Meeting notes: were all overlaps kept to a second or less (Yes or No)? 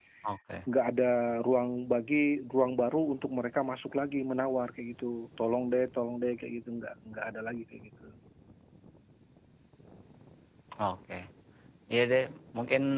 Yes